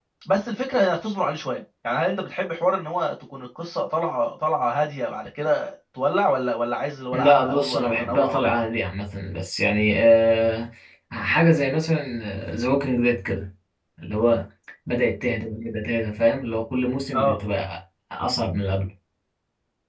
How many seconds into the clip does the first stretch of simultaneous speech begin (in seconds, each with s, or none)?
7.1 s